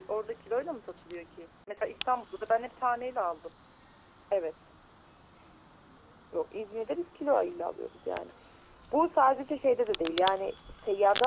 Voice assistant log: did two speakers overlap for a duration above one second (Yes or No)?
No